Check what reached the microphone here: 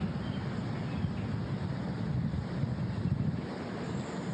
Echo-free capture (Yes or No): Yes